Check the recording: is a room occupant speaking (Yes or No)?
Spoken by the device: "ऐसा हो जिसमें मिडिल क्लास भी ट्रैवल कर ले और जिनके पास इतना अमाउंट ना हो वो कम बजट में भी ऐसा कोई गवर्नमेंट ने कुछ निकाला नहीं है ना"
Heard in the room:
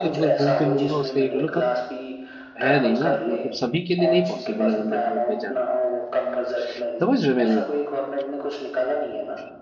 Yes